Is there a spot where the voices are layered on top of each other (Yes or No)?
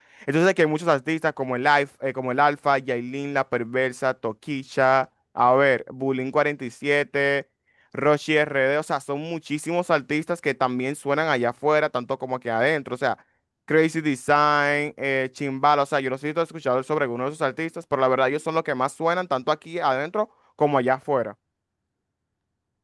No